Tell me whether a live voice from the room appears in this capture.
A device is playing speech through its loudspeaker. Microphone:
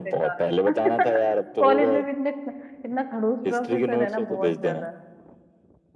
Yes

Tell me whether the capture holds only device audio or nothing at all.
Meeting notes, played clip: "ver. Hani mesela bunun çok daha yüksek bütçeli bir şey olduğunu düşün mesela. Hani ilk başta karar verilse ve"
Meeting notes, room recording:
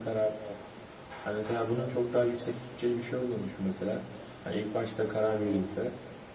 Yes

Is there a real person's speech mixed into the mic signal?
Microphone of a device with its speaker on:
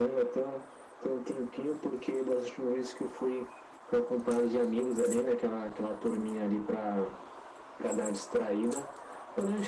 No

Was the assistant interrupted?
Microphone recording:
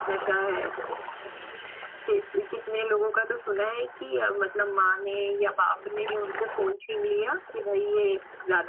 No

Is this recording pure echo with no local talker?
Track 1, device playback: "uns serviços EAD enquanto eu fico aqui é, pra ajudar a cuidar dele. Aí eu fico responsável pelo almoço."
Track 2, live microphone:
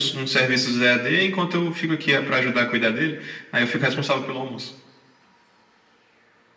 Yes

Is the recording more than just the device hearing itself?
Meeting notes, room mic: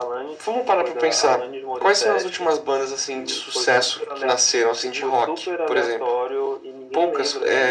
No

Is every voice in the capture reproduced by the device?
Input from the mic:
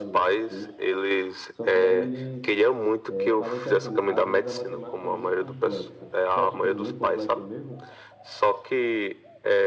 No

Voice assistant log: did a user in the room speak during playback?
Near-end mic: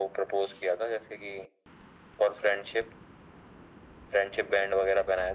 No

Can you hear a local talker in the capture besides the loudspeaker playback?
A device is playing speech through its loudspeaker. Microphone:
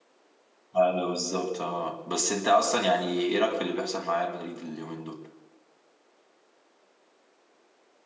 Yes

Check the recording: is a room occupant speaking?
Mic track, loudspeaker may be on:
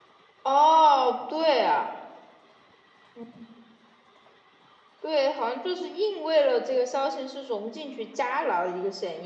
Yes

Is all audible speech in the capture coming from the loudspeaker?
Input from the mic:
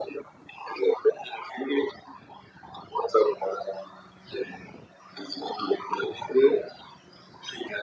Yes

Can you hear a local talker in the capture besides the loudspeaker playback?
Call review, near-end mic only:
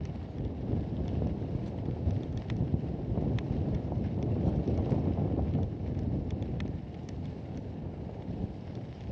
No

